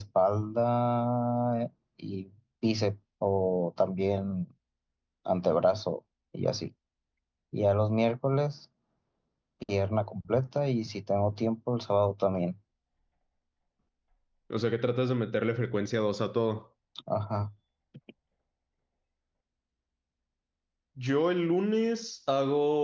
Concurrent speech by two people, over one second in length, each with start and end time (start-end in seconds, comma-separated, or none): none